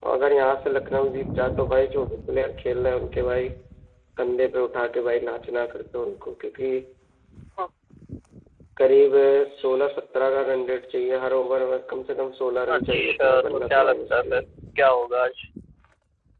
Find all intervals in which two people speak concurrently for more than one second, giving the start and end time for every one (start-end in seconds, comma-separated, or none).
12.7-14.4